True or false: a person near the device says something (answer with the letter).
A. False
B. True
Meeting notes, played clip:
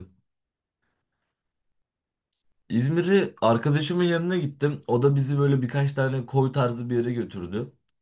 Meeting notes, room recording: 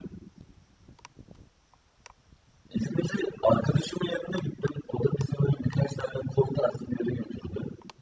A